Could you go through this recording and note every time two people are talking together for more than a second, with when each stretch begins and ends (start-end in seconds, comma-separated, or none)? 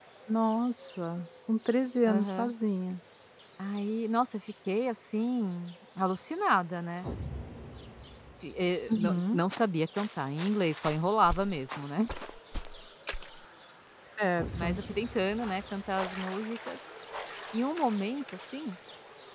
none